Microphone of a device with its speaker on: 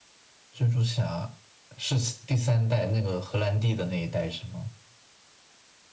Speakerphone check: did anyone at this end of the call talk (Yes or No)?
No